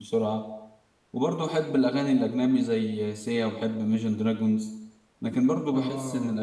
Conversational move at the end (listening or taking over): listening